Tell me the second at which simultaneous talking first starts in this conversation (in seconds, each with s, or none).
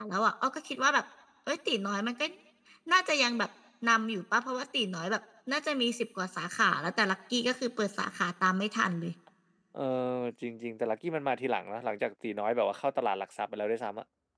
none